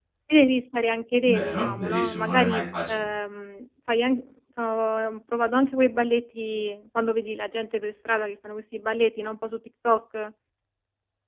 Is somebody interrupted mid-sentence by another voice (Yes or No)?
Yes